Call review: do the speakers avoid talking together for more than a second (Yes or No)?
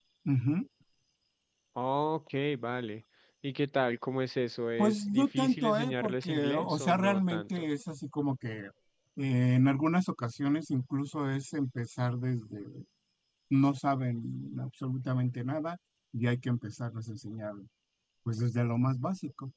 No